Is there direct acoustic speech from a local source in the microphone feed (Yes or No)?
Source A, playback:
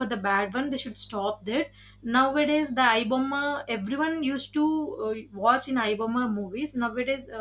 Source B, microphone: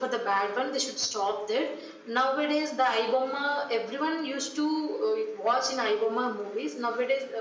No